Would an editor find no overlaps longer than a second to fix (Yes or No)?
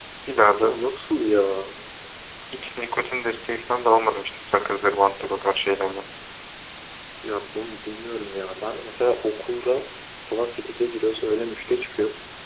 Yes